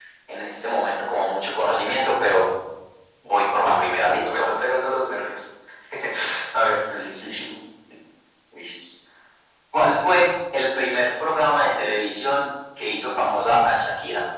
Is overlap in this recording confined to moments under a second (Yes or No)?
Yes